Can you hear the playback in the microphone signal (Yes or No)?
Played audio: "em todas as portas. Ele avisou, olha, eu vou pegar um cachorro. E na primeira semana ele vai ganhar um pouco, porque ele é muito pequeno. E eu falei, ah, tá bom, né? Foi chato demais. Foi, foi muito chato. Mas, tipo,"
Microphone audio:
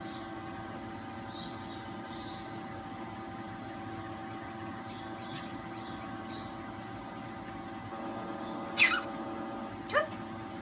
No